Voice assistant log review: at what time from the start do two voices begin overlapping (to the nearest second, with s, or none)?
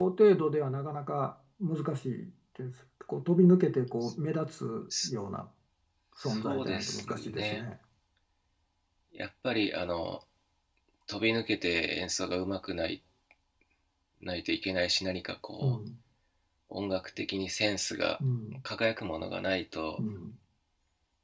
6 s